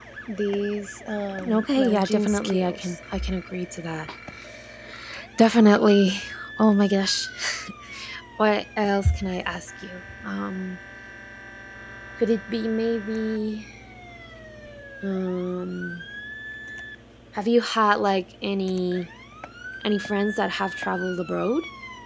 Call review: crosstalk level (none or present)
present